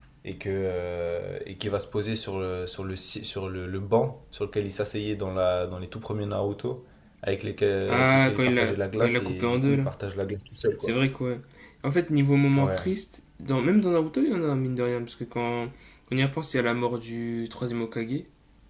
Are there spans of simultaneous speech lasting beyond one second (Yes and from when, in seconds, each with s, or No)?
Yes, from 7.9 s